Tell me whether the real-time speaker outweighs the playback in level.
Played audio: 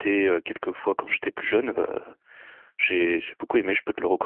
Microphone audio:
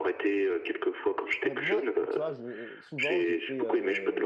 No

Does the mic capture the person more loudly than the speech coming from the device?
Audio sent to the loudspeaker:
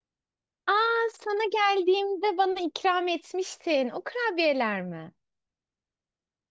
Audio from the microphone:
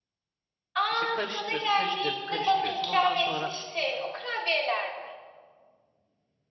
No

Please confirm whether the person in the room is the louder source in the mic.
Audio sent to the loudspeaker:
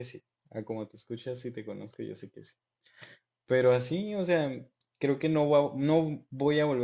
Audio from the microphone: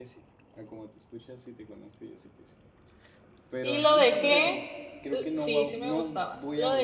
Yes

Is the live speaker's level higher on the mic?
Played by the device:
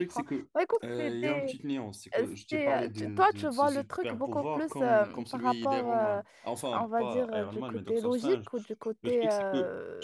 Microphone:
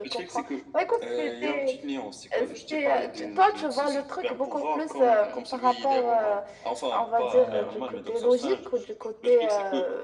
No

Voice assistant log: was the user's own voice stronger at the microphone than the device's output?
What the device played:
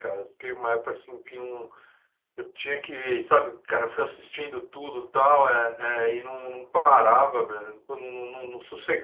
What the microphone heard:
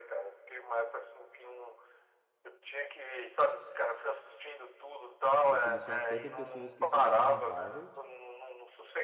No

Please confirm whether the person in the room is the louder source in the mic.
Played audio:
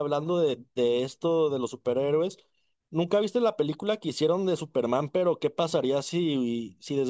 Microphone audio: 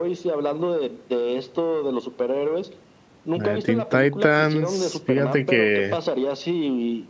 Yes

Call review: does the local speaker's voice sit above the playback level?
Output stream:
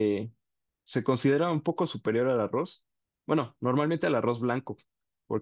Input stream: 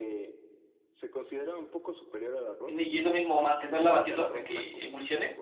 Yes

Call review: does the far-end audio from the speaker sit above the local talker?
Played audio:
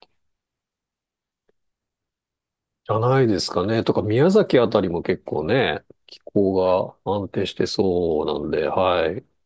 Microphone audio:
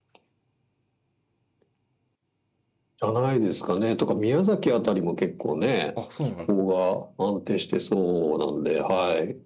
Yes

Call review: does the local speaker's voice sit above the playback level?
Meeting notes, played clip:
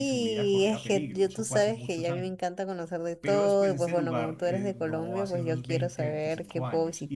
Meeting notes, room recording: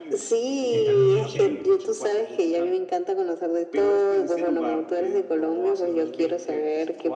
No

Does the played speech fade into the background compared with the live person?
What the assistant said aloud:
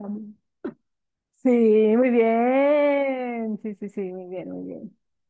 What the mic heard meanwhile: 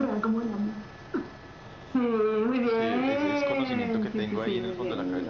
No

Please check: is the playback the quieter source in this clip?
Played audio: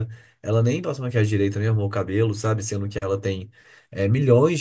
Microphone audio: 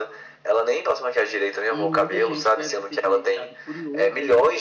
No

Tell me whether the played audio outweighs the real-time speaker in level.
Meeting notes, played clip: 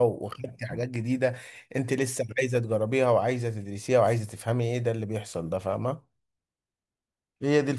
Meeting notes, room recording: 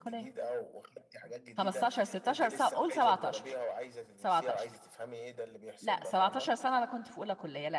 No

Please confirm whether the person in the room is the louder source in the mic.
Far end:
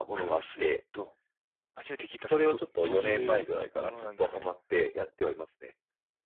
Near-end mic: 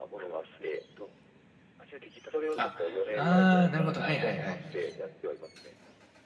Yes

